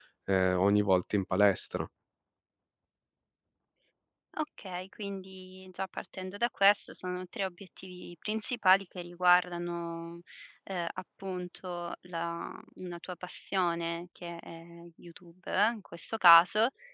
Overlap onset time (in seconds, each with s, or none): none